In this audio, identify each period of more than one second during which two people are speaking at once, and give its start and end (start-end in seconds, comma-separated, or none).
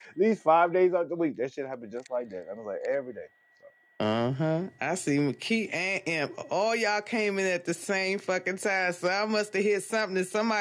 none